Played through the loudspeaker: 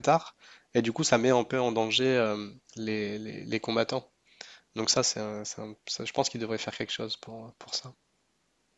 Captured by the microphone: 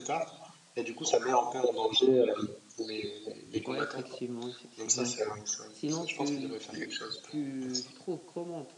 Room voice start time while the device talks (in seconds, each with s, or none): 3.7 s